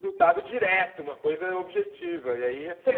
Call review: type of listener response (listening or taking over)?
taking over